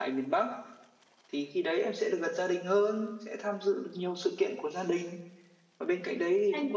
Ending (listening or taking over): listening